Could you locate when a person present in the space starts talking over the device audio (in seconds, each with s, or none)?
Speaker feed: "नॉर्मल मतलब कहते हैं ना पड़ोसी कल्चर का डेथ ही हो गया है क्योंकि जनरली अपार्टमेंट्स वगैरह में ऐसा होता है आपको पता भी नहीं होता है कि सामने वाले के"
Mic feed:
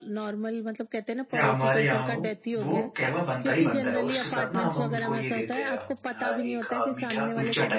1.3 s